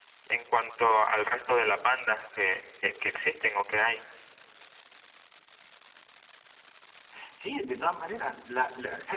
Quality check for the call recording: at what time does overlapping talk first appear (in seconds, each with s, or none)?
none